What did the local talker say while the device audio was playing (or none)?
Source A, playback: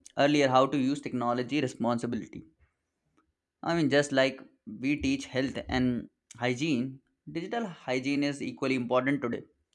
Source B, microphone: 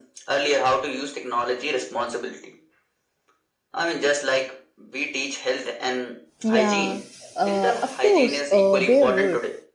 Yeah, uh, of course, uh, they would.